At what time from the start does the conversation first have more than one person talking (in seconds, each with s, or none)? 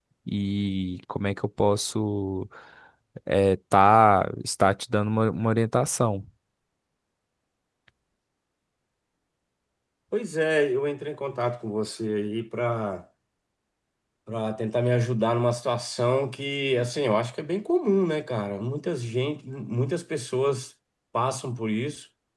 none